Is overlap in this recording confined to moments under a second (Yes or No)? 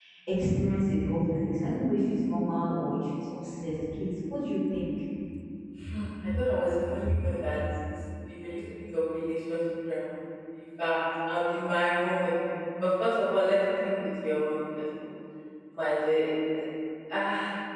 Yes